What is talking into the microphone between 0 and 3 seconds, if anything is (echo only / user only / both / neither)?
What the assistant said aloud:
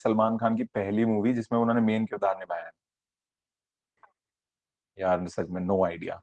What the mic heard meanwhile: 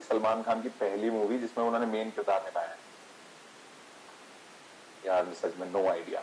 echo only